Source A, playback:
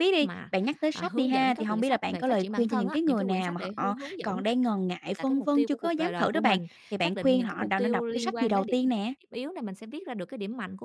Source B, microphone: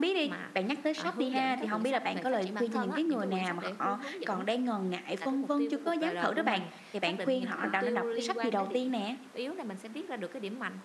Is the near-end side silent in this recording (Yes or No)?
No